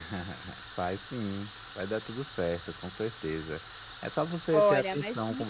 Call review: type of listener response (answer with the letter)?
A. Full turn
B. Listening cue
A